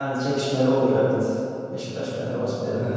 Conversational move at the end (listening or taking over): taking over